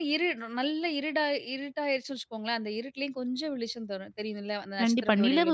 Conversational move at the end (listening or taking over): taking over